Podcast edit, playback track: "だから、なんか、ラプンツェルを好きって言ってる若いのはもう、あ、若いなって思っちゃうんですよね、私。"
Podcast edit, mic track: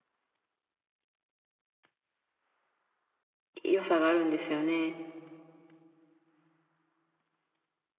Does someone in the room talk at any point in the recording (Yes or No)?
Yes